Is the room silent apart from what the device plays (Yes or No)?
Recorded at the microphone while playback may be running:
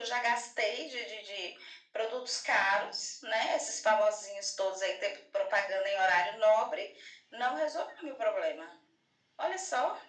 Yes